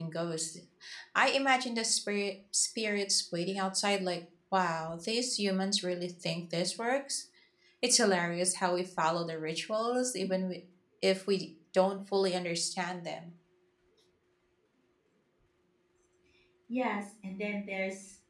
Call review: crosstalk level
none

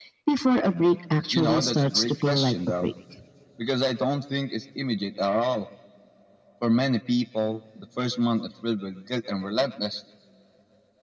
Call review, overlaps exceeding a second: present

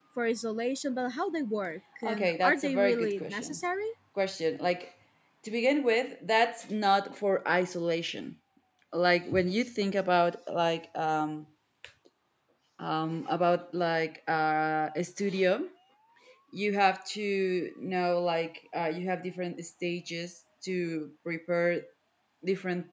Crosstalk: present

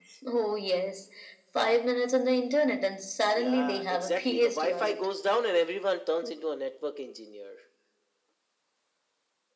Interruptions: present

